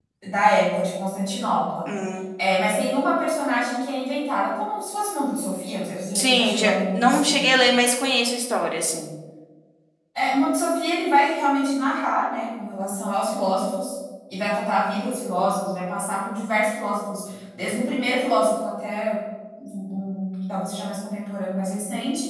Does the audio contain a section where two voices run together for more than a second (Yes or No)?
Yes